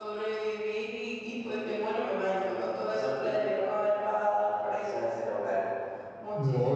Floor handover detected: Yes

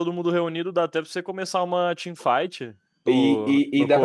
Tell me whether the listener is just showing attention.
No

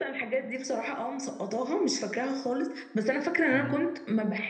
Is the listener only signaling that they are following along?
Yes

